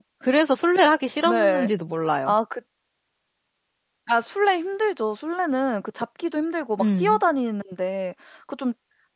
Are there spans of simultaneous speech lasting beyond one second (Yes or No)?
No